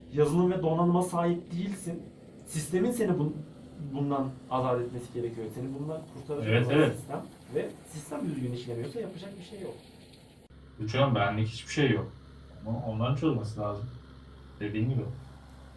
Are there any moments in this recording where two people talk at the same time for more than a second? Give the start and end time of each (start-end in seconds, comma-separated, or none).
none